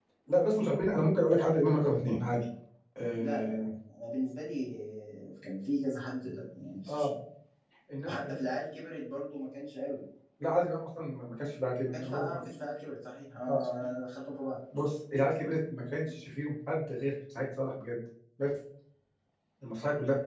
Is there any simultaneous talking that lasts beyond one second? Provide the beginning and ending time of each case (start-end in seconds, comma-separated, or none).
none